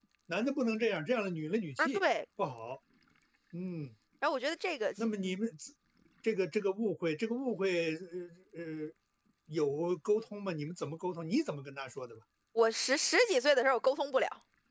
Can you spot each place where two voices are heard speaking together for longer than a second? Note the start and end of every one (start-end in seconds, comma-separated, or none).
none